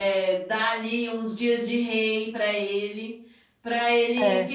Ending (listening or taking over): listening